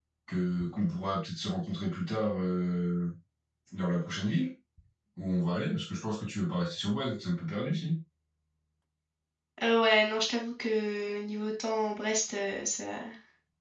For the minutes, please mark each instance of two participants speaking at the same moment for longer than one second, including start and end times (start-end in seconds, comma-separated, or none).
none